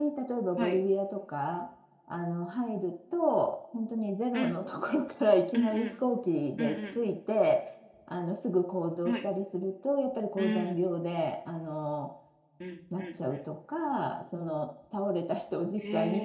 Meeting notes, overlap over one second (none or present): none